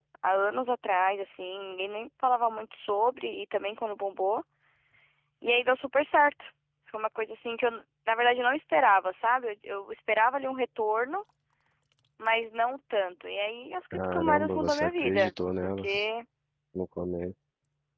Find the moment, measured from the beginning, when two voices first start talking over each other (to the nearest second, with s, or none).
14 s